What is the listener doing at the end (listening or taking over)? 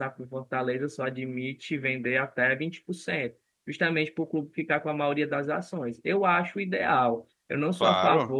listening